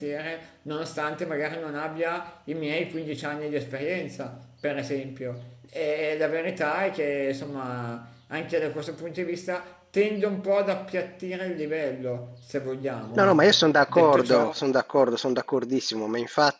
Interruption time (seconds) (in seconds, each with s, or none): 13.1 s